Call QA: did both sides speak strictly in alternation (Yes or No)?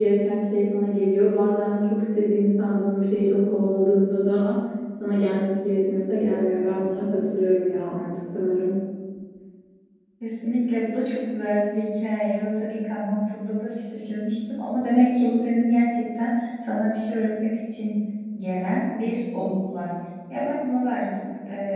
Yes